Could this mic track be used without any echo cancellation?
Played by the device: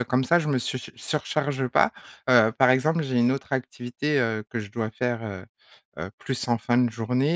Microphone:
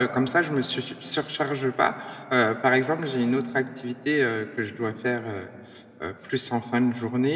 No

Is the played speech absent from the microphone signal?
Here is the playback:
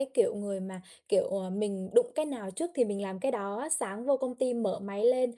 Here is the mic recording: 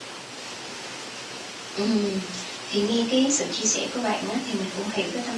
Yes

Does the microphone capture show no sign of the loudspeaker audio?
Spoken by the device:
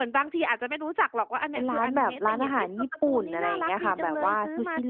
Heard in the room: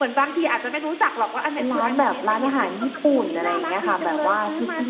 No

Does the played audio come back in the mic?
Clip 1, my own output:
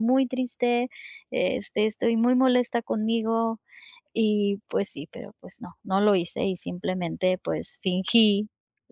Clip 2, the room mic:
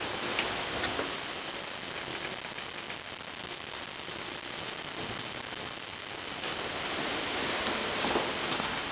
No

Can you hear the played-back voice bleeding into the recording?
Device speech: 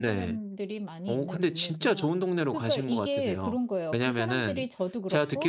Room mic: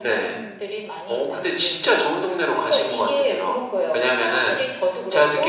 Yes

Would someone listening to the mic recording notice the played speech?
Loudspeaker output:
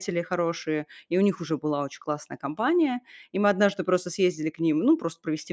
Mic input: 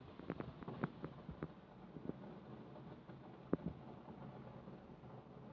No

